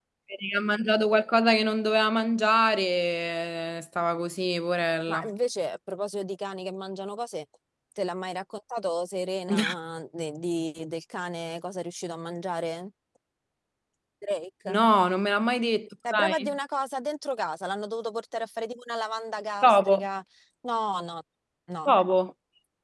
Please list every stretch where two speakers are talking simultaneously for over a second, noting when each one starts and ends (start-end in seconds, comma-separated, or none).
none